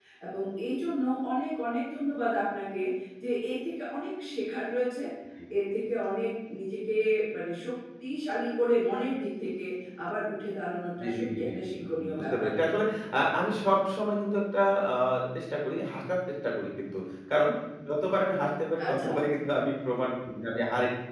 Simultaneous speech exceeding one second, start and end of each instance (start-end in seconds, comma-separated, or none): 11.0-12.5